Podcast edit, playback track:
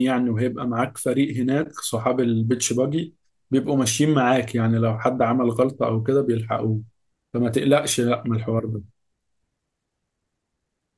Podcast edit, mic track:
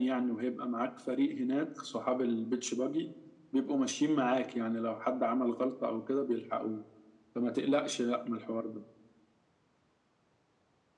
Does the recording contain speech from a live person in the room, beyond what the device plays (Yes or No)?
No